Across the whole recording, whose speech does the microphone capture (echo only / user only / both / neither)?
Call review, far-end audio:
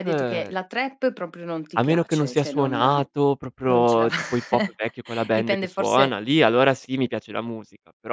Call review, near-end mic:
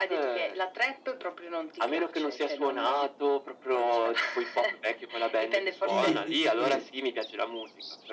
both